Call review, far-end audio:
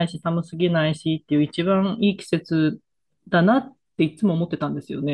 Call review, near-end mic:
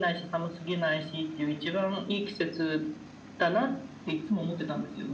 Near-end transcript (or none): none